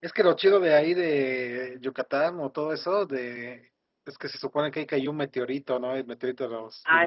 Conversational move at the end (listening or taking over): taking over